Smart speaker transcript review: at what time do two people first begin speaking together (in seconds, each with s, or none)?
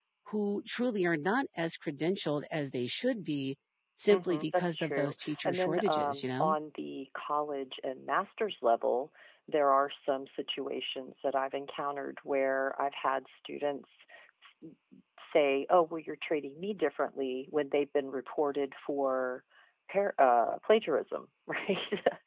4.1 s